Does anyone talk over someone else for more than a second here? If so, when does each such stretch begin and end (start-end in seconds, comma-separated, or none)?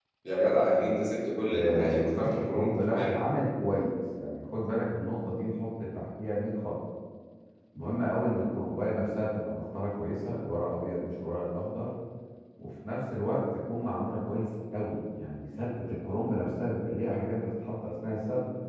1.5-3.2